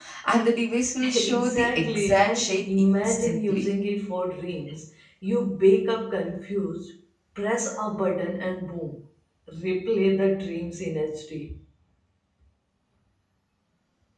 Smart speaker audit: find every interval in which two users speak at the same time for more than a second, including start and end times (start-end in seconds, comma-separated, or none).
1.1-3.7